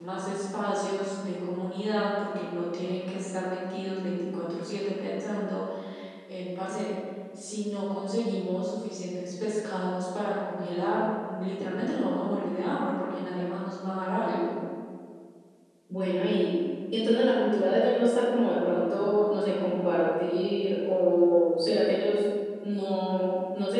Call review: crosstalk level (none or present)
none